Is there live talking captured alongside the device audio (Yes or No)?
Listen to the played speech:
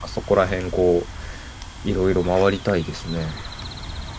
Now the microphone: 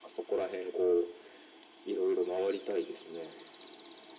No